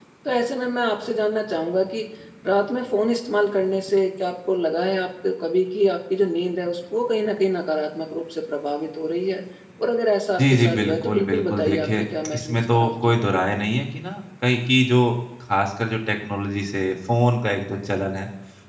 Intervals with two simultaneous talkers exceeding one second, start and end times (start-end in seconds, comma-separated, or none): 10.4-13.4